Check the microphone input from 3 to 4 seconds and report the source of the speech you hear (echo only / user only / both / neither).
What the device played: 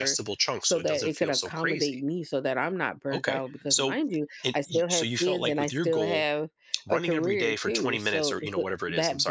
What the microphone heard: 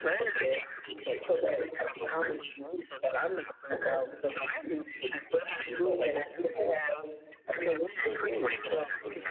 echo only